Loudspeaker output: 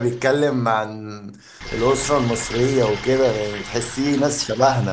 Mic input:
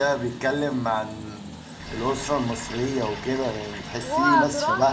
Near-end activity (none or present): present